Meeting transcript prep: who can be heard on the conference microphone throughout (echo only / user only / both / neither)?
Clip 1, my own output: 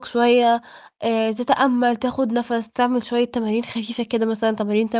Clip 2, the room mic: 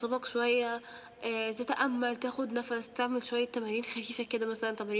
echo only